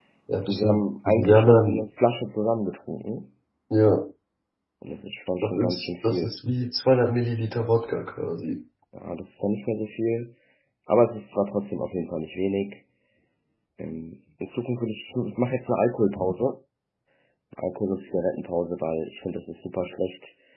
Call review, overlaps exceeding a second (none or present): present